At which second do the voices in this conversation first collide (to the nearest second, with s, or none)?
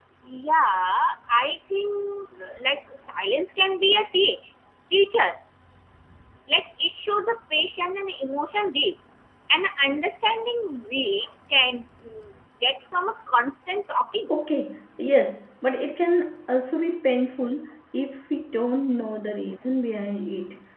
none